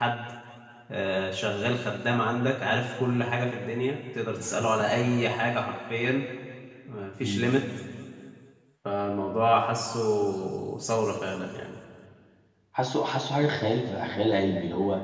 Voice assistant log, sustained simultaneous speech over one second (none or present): none